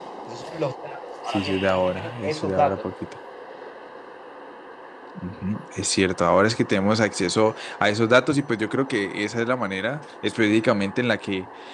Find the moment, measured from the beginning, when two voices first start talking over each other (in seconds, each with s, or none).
1.3 s